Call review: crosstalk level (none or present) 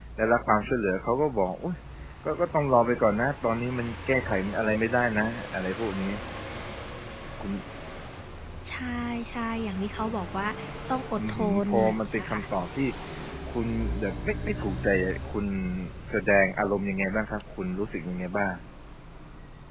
present